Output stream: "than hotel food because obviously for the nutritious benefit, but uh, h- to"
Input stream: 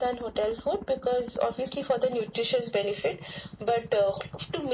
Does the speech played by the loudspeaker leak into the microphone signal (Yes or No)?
Yes